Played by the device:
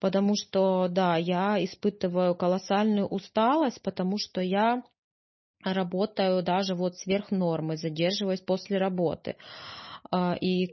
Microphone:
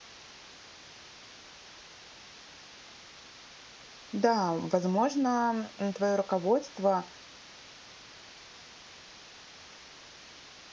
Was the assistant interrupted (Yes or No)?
Yes